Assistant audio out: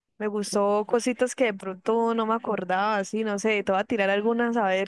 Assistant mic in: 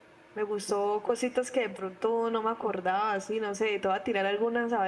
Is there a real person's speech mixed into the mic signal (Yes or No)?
No